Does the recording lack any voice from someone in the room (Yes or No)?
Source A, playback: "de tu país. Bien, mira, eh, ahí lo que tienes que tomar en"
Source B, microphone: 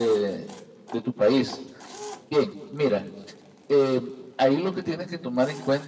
Yes